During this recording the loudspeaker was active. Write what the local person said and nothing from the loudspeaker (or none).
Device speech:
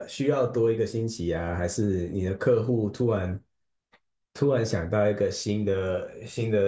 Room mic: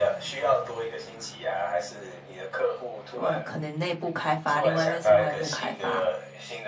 外，可能内部开发，另外一面是外部开发。